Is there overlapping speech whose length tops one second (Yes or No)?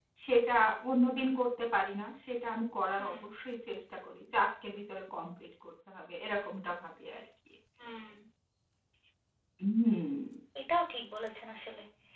No